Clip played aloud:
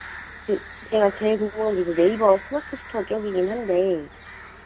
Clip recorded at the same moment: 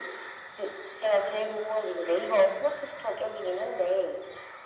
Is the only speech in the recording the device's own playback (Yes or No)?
Yes